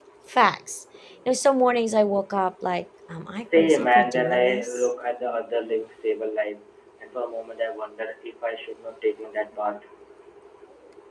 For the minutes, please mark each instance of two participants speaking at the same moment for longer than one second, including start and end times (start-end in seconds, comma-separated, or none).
3.4-4.9